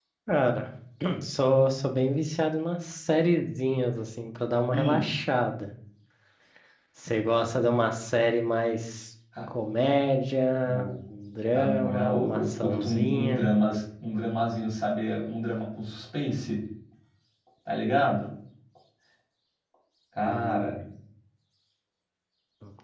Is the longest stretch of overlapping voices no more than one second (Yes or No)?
No